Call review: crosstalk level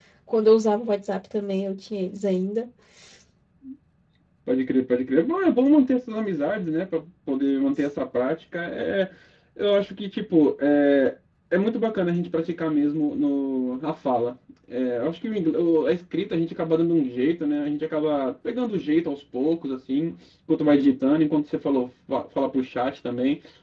none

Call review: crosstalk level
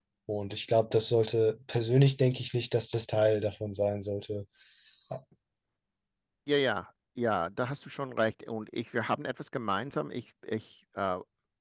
none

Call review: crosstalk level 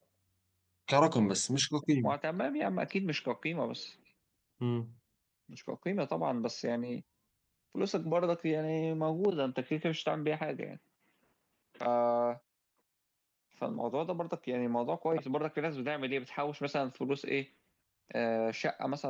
none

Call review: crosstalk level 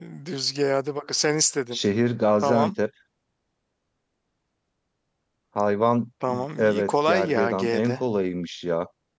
present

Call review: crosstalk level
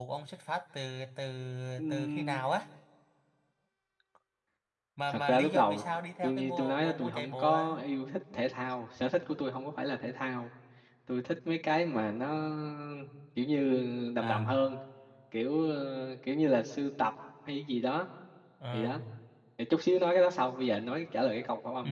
present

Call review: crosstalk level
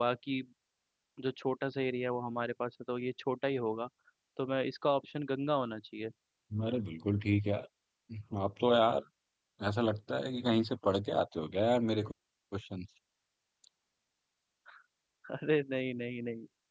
none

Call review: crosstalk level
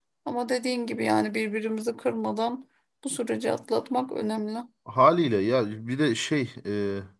none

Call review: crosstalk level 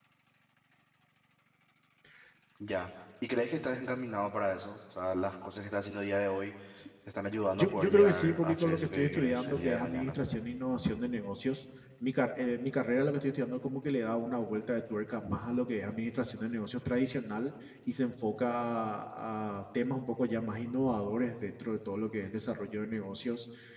present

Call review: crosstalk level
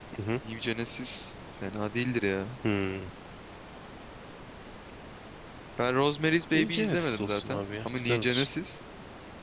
present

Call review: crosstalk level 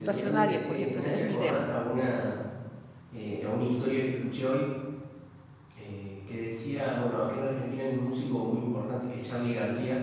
present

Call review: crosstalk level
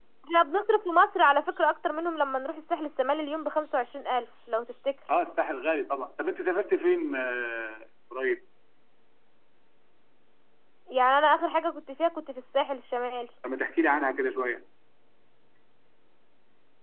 none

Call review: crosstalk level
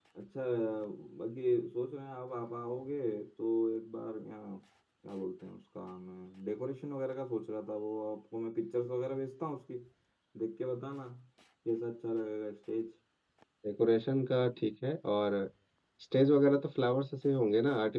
none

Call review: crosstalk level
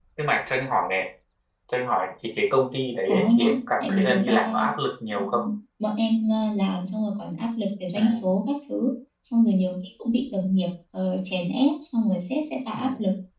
present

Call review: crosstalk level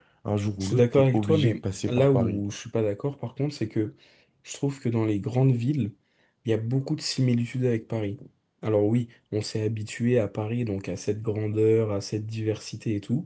present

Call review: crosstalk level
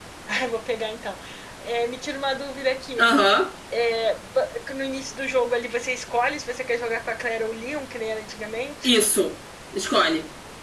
none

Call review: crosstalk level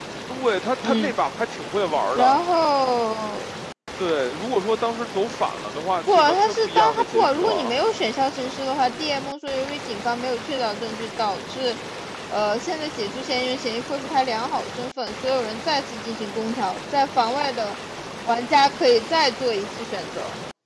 present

